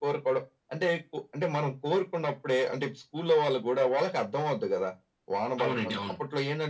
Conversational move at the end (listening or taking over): listening